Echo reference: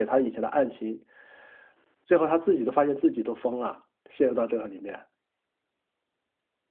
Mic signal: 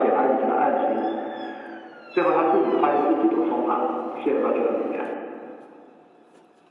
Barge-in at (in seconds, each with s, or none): none